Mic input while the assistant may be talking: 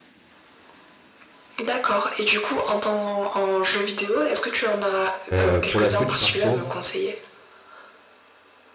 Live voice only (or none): Heu, pour la Switch, par contre